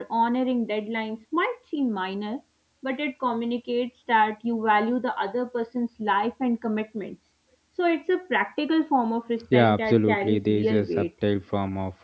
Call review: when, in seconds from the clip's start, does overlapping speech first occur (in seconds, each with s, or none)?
9.5 s